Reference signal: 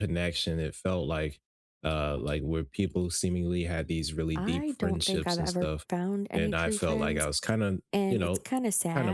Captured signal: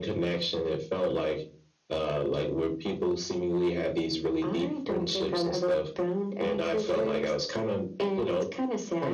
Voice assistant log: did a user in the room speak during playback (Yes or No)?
No